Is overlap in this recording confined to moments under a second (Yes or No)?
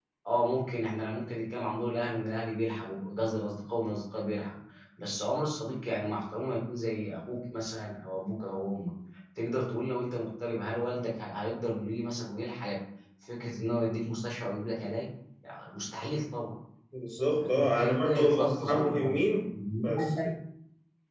No